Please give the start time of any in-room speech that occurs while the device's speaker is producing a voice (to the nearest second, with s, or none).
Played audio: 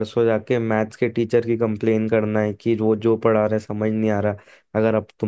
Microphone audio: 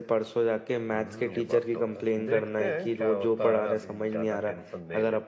1 s